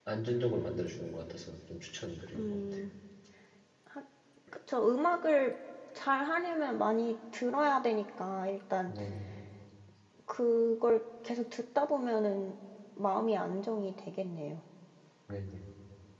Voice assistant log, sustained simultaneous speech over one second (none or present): none